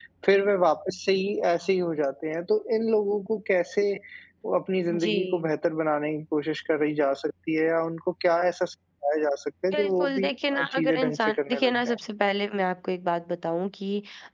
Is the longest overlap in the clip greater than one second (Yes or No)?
Yes